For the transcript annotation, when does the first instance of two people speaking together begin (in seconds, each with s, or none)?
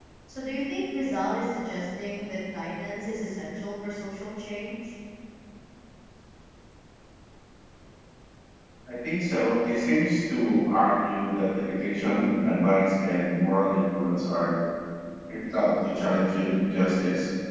none